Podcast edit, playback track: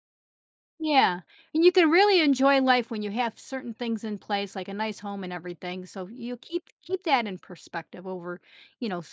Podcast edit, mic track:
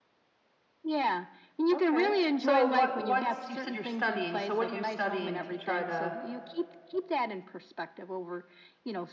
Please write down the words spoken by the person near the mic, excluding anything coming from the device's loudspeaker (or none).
okay. So what what's you said you're studying, so what are you studying to try to